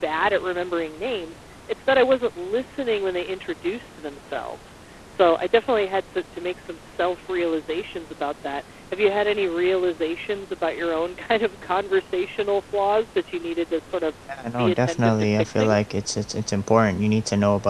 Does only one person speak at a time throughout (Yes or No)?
No